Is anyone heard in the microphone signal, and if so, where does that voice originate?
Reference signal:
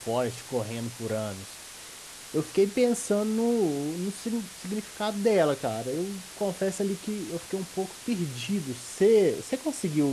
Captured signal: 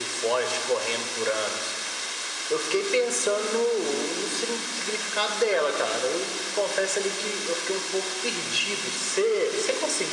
echo only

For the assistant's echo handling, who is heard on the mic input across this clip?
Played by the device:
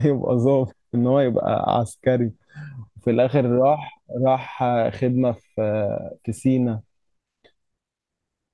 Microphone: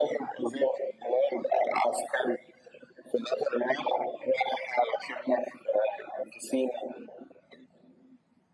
echo only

